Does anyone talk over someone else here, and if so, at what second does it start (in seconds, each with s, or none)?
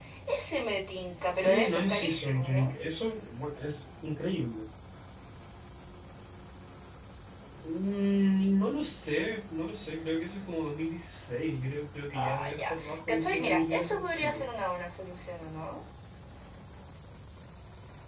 1.3 s